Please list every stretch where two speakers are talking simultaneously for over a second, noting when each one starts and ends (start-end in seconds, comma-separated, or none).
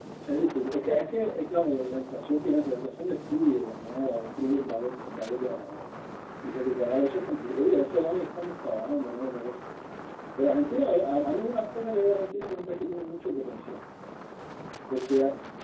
none